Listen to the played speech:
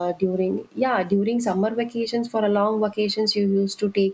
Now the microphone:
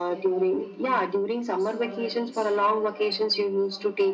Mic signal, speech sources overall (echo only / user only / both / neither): both